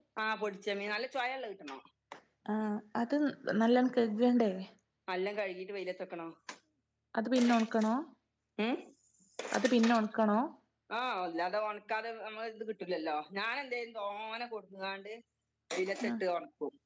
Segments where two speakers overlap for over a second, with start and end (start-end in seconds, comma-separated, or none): none